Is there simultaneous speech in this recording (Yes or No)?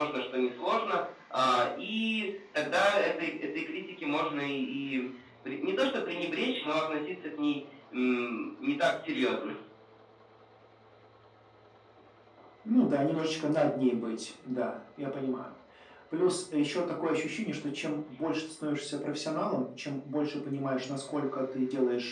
No